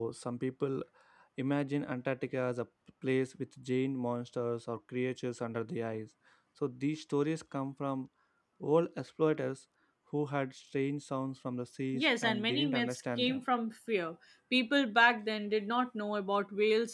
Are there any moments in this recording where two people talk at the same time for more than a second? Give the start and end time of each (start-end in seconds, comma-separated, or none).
11.9-13.4